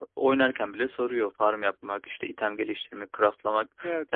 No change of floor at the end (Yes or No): Yes